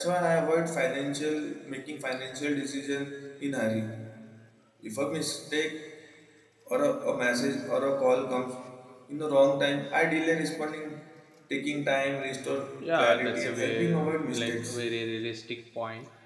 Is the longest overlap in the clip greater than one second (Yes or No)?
Yes